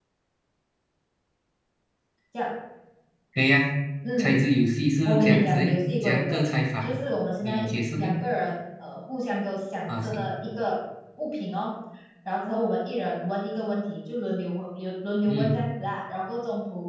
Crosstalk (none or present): present